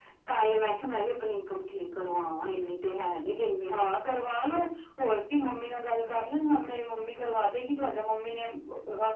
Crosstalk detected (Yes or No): No